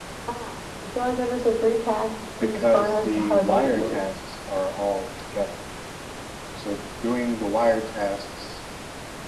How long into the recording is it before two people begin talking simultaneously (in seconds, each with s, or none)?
2.4 s